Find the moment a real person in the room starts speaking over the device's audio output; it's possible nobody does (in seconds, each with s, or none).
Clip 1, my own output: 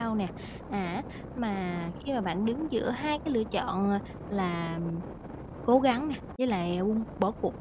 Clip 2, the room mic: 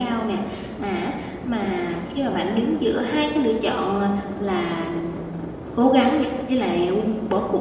none